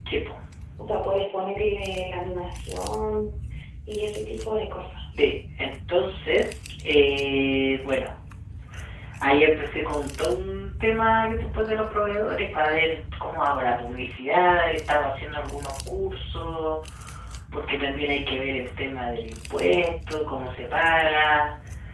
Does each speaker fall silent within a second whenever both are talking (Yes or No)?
Yes